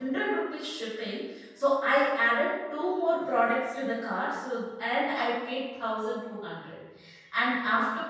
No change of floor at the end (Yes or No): Yes